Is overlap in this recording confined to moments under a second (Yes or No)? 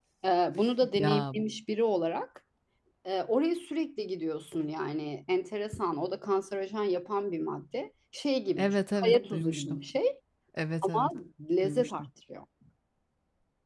No